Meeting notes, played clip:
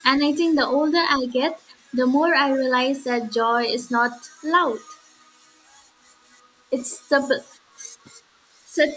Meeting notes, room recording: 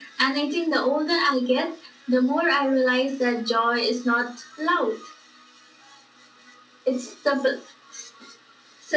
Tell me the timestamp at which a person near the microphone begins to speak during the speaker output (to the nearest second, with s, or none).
none